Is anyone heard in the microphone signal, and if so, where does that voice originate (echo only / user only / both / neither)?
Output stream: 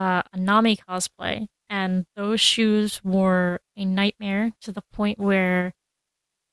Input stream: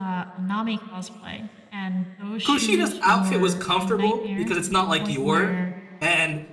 both